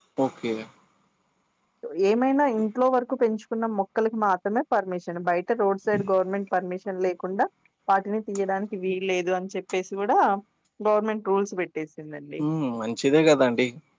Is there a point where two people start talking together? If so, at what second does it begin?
none

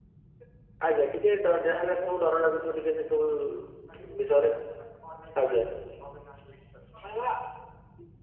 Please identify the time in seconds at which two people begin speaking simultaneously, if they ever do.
1.3 s

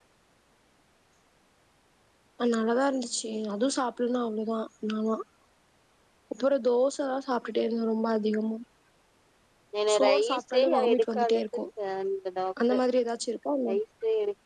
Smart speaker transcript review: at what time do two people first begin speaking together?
9.9 s

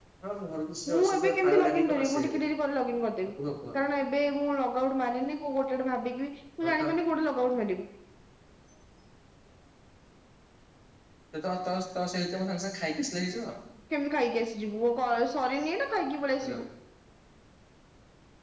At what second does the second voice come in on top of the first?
0.9 s

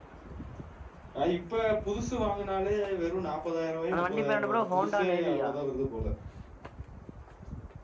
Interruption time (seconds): 3.9 s

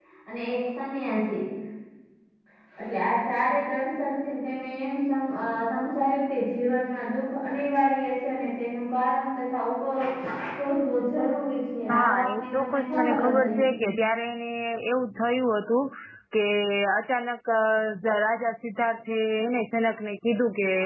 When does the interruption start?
11.9 s

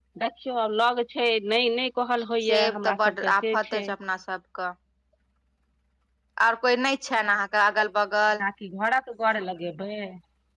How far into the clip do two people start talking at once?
2.4 s

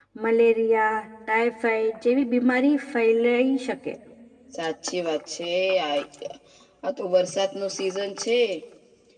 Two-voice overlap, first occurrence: none

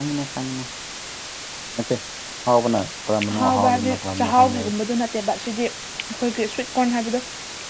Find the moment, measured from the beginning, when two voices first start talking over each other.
3.3 s

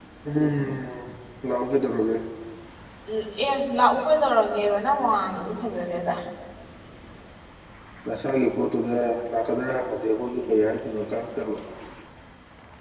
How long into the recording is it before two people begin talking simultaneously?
none

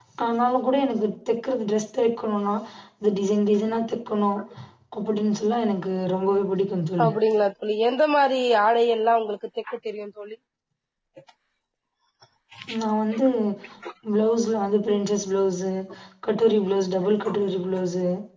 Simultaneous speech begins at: none

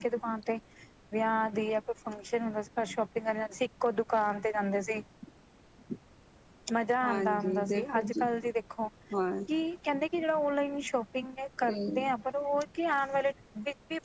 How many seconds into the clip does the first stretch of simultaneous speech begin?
7.0 s

